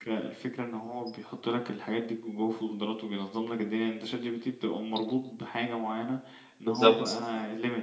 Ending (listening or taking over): listening